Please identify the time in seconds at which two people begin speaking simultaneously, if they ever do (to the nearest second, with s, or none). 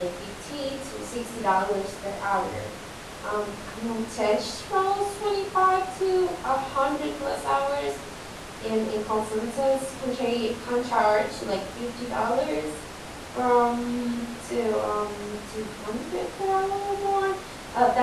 none